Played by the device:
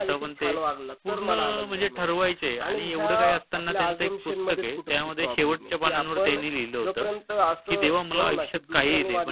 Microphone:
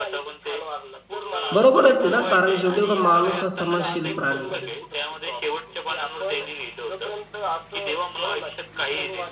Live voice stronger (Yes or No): Yes